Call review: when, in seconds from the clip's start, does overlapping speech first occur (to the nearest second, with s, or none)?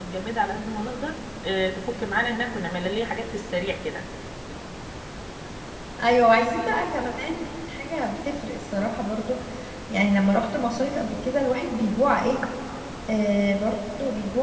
none